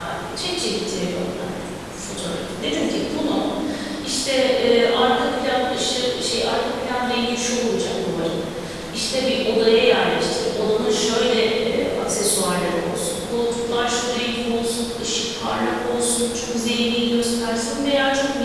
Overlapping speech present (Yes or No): No